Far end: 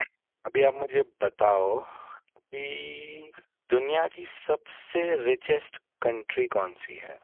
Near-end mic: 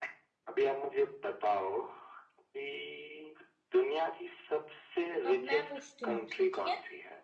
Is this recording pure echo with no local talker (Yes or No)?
No